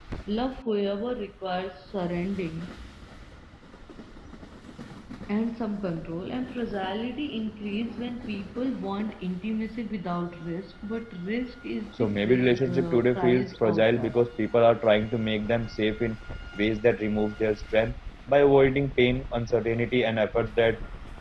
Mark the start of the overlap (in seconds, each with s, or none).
12.0 s